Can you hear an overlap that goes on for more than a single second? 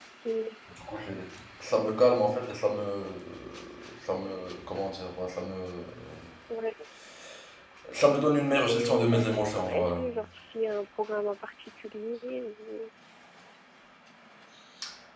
Yes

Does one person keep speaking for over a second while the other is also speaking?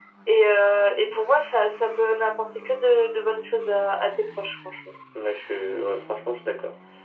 No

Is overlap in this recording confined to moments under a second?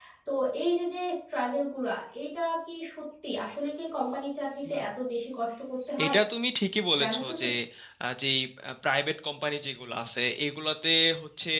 Yes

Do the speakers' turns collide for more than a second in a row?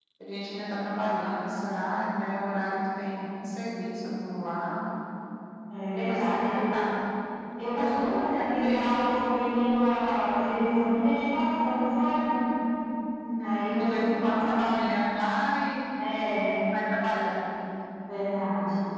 Yes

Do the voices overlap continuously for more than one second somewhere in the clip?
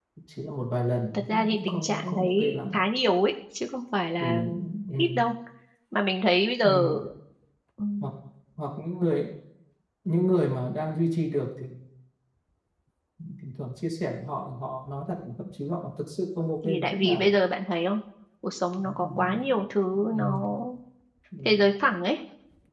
Yes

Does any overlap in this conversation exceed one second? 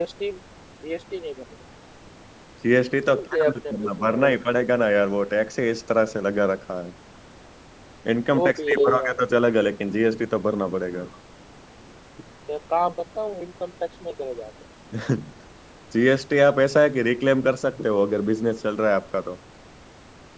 Yes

